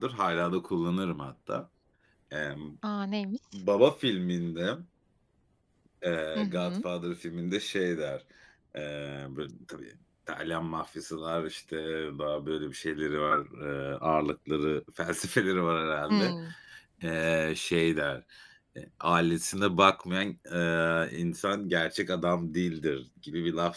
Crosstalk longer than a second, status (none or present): none